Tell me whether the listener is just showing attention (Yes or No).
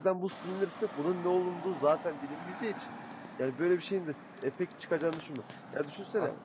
Yes